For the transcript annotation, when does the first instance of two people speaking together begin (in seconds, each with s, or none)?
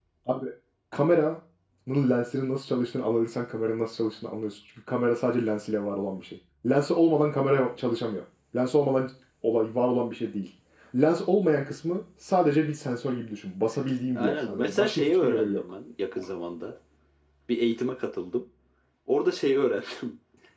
14.2 s